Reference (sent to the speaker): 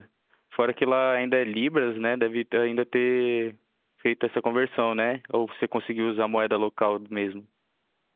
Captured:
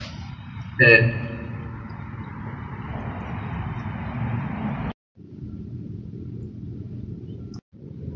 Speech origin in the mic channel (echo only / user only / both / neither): user only